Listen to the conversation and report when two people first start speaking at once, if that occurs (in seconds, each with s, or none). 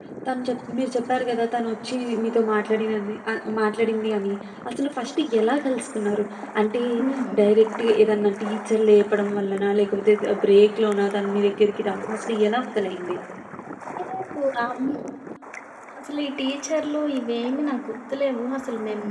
none